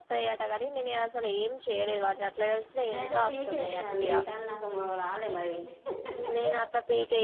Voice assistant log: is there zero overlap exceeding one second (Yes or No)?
No